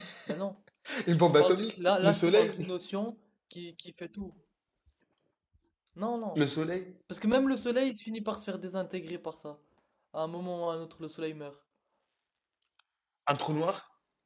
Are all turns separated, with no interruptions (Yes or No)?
No